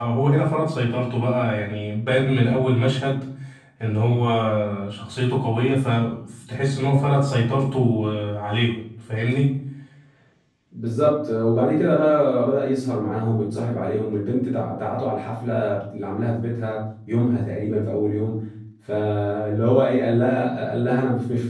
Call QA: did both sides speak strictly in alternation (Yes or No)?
Yes